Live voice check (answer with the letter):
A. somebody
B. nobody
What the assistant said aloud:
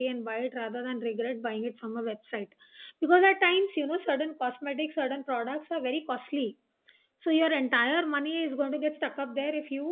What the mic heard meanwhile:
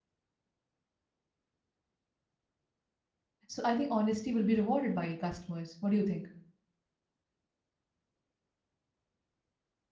A